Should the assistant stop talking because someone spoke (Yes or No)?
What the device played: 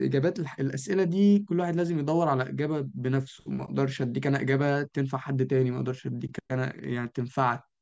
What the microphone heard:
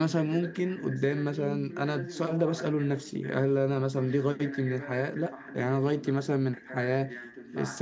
Yes